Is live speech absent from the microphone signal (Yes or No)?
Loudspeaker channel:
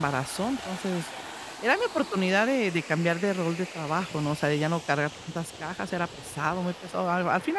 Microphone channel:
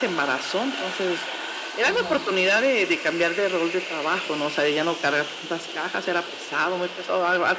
No